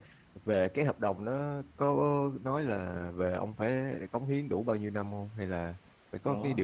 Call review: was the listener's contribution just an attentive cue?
No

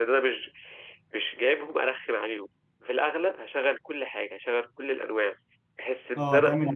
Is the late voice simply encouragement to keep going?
No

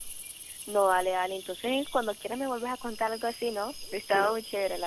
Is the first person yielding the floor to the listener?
Yes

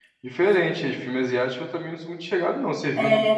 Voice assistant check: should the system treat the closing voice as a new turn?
No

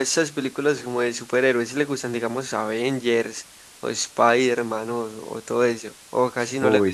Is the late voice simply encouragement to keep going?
No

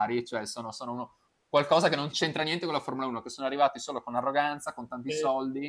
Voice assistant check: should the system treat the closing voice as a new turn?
No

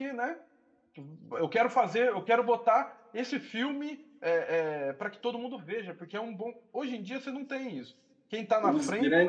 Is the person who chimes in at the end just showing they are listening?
No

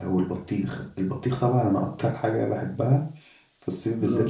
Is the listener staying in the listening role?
Yes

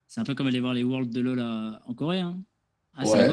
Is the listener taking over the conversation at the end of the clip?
Yes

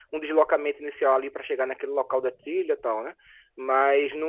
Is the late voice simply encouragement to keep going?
Yes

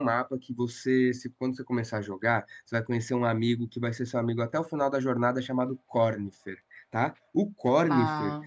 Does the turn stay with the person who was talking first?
Yes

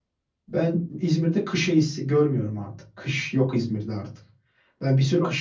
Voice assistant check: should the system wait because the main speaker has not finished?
Yes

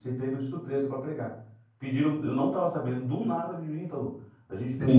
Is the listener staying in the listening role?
Yes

